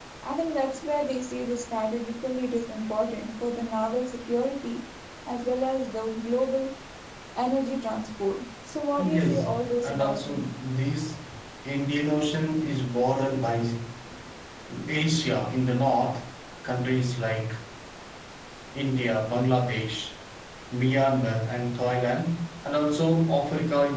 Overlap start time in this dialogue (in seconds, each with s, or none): 9.0 s